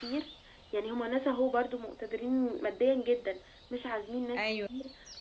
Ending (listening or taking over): listening